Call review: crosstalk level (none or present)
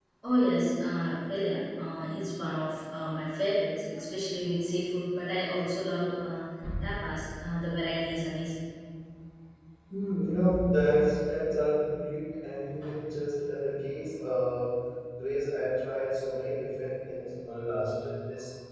none